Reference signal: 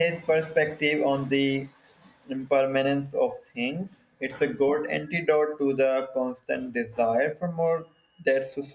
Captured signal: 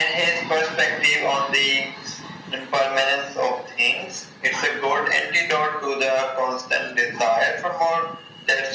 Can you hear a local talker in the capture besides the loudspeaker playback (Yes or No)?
No